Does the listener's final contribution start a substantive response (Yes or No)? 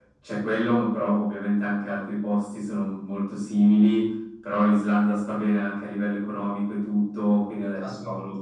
No